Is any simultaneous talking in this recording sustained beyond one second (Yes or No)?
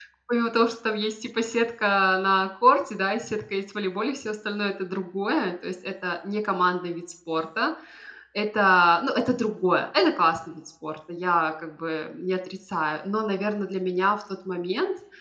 No